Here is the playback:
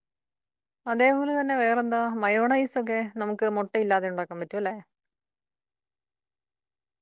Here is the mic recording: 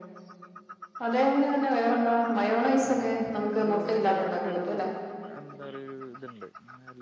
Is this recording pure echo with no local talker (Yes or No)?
No